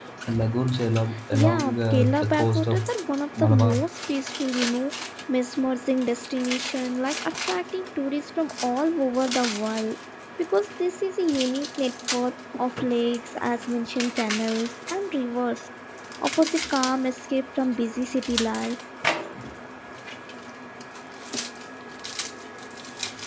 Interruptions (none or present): present